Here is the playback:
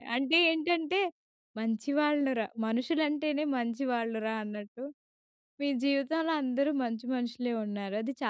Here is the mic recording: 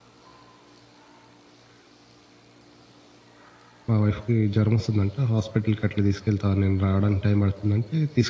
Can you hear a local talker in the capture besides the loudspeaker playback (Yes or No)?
Yes